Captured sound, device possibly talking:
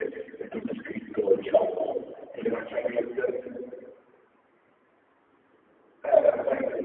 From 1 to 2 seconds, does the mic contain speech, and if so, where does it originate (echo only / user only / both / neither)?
echo only